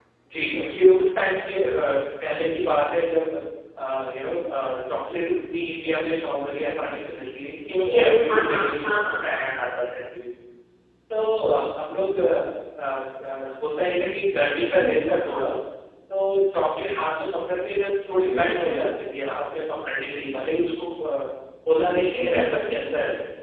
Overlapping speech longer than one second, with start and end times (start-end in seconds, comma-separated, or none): 7.8-9.4